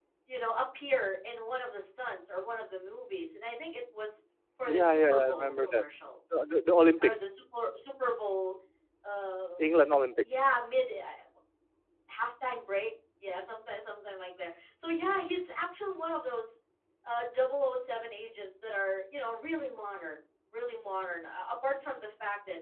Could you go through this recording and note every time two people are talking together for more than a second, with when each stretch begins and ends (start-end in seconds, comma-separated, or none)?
4.6-5.8